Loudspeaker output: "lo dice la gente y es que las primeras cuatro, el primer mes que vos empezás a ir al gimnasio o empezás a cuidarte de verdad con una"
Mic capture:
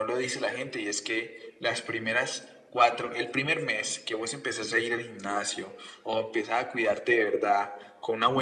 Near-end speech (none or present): none